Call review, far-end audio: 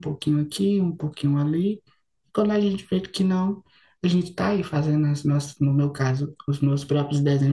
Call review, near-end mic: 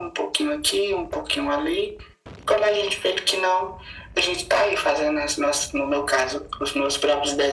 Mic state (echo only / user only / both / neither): echo only